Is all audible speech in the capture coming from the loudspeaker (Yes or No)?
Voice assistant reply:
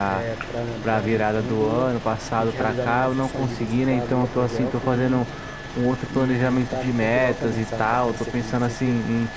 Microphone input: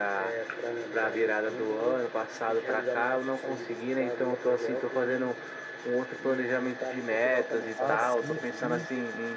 No